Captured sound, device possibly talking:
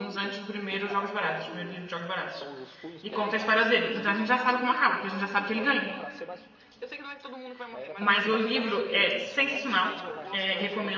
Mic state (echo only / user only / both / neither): both